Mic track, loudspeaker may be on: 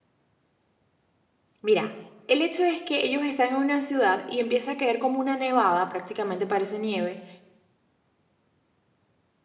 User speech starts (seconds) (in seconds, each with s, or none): 1.6 s